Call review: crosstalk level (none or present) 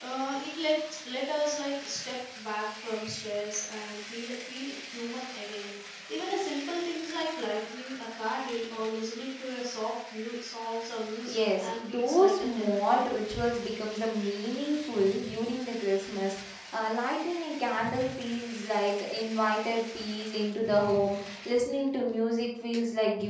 present